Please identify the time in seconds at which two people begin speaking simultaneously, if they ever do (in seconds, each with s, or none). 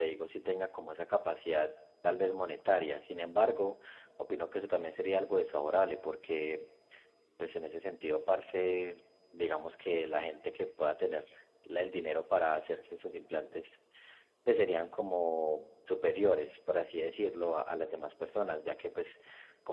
none